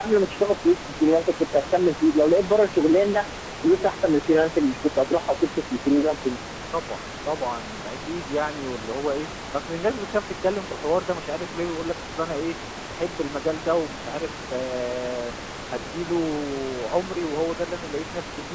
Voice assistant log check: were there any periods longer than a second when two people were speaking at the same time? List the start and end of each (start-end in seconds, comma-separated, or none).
none